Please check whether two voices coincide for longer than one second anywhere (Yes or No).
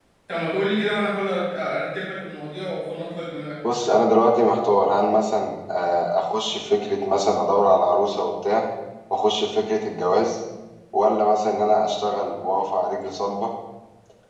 No